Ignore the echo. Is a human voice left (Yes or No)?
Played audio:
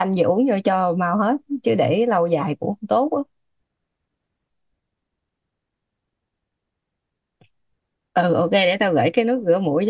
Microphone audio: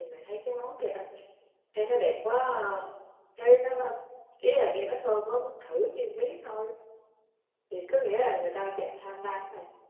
Yes